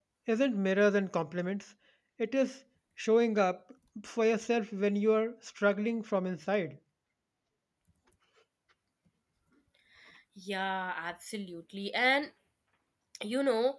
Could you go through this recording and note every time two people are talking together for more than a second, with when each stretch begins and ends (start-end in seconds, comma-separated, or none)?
none